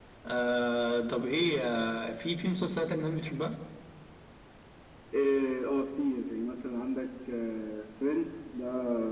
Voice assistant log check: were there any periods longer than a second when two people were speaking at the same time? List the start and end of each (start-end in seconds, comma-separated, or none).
none